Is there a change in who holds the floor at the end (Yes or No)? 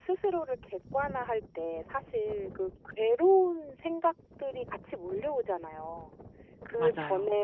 No